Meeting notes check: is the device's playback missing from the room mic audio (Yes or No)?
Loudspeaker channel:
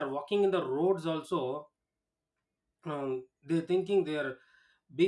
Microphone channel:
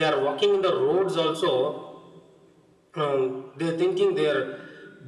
No